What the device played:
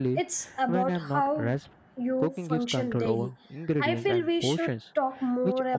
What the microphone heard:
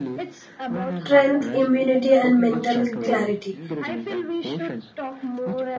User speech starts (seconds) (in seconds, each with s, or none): 1.0 s